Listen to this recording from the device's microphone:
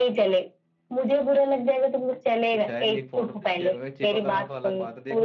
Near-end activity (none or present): present